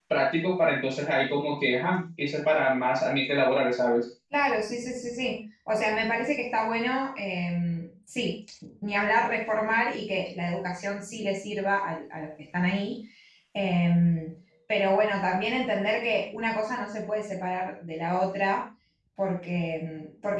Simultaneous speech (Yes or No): No